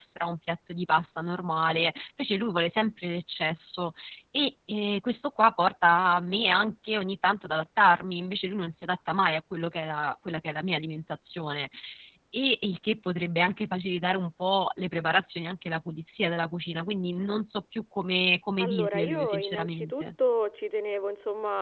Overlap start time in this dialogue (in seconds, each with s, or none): 18.6 s